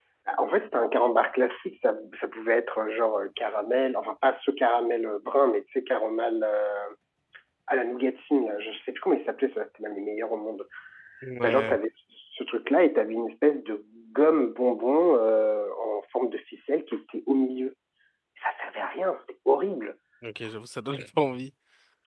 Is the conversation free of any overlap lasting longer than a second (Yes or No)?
Yes